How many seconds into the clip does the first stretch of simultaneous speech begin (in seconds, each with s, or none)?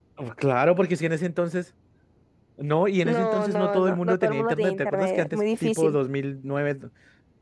3.0 s